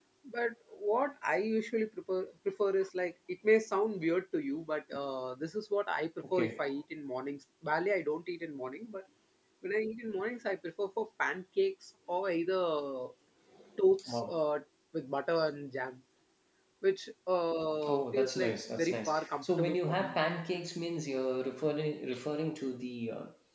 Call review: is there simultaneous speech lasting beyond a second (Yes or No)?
Yes